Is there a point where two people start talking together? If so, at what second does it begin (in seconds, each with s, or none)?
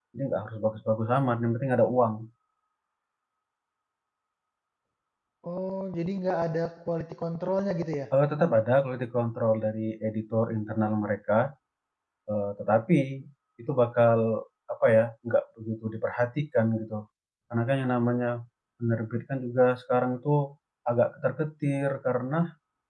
none